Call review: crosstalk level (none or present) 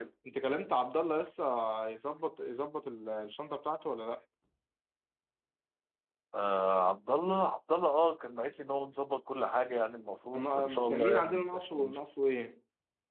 present